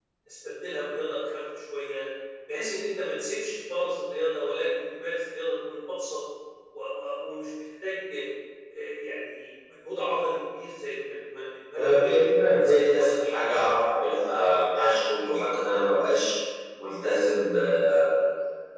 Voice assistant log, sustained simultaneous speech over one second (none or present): present